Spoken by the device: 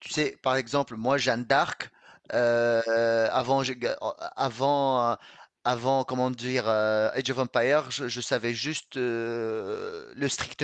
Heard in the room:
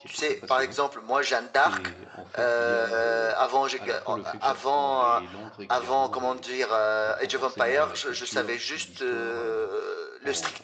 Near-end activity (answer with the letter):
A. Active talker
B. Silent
A